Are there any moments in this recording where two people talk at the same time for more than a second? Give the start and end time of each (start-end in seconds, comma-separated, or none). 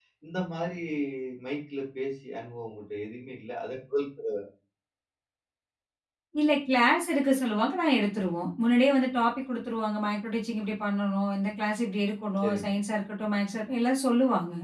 none